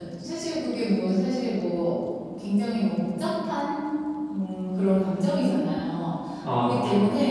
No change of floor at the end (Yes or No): Yes